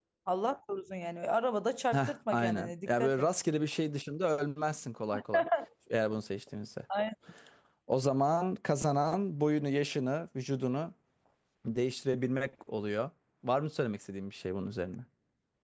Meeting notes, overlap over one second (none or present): present